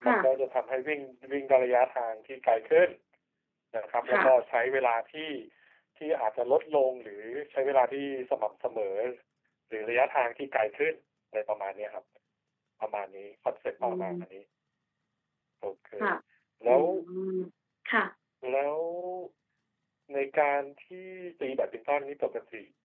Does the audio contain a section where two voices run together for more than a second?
No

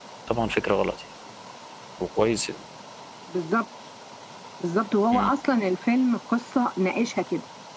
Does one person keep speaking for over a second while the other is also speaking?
No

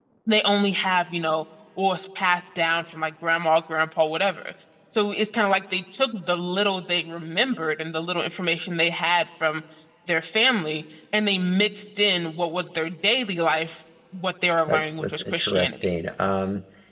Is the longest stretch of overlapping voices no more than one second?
No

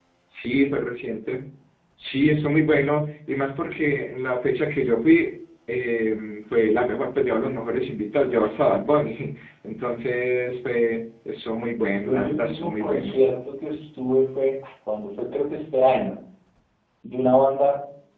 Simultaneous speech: Yes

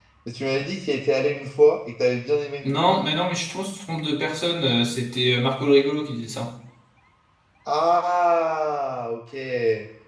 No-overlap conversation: Yes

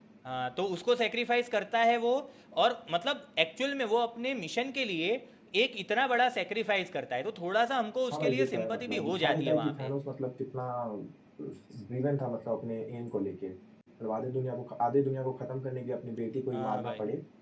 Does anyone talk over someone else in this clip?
Yes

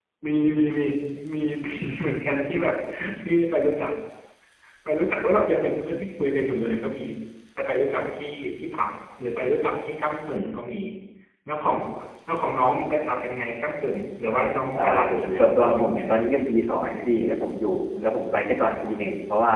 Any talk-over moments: Yes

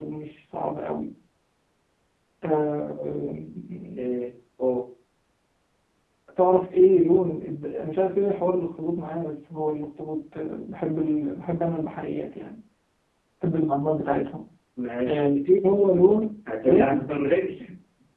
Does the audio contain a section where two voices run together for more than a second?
No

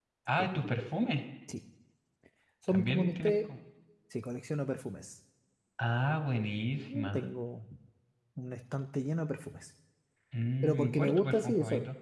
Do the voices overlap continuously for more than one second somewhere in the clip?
Yes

